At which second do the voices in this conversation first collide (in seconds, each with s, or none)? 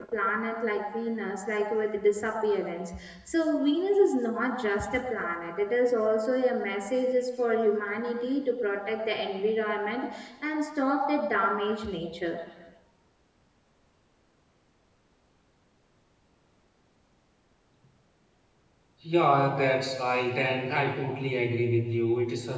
none